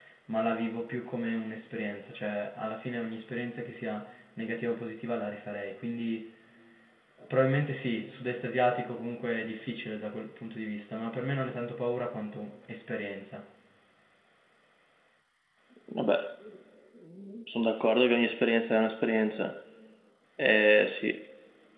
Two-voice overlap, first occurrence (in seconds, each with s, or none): none